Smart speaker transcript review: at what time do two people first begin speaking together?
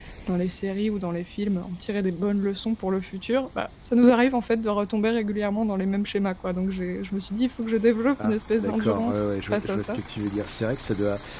8 s

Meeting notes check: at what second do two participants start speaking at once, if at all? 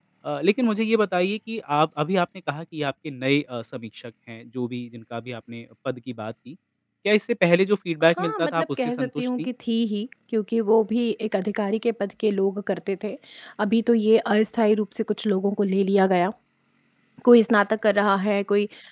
8 s

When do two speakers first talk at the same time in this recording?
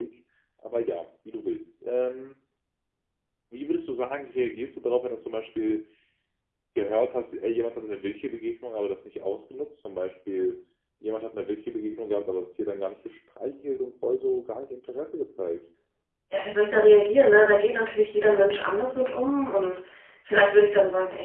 none

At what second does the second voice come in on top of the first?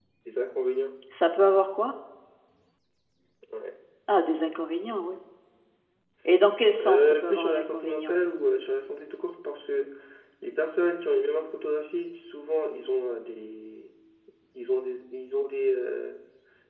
7 s

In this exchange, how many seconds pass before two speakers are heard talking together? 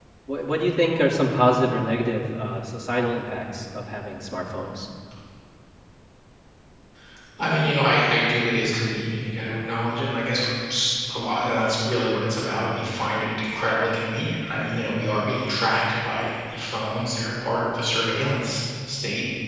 none

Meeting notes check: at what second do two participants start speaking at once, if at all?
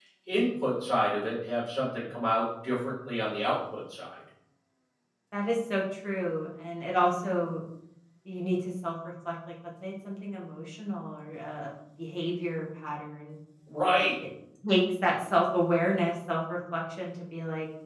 none

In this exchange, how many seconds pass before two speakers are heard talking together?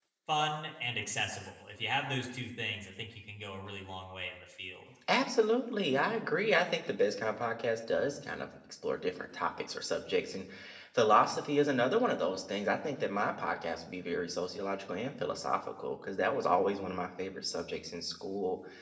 none

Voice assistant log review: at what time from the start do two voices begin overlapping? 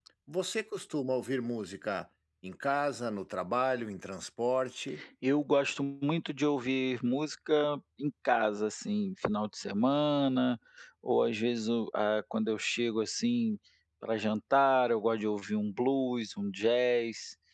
none

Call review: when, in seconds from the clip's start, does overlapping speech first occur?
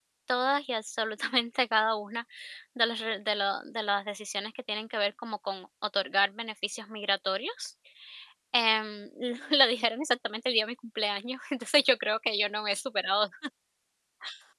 none

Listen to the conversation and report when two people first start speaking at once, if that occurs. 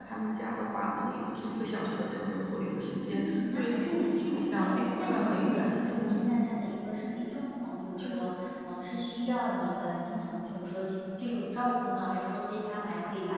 3 s

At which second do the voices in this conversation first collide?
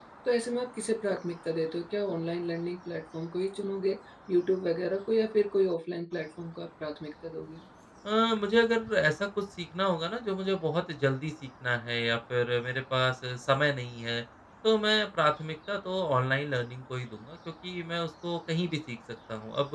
none

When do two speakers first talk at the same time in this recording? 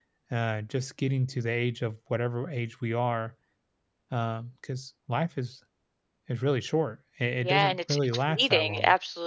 7 s

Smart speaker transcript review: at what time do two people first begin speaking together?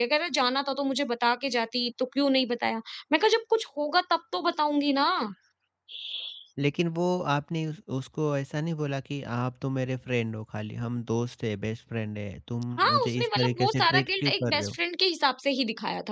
13 s

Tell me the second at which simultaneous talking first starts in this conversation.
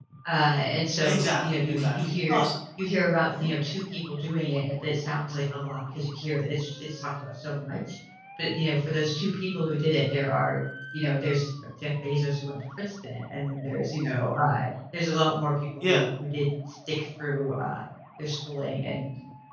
1 s

